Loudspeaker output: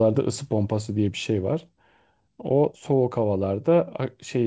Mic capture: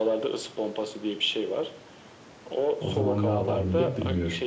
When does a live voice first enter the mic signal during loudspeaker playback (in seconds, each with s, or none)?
2.8 s